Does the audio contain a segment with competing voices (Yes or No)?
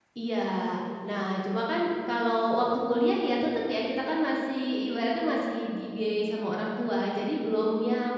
No